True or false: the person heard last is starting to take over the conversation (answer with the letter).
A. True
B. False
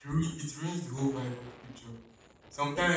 B